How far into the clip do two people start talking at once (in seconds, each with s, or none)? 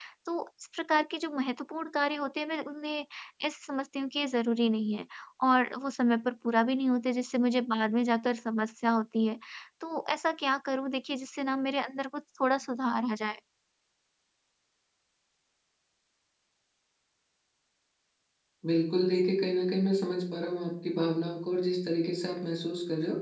none